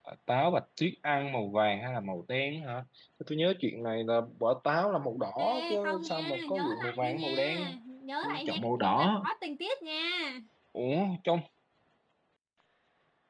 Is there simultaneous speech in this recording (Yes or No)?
Yes